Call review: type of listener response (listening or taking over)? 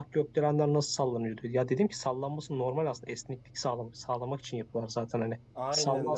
taking over